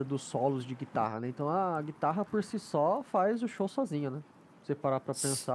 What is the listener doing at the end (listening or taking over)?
taking over